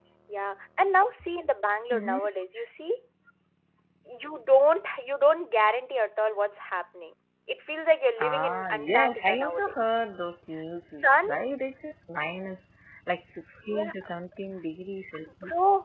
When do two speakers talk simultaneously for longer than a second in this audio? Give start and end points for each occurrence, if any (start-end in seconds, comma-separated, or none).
8.2-9.7